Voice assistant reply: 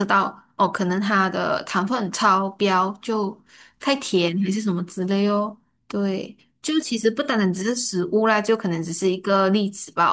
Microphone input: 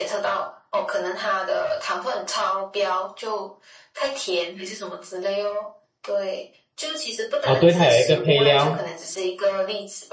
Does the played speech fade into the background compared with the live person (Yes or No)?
Yes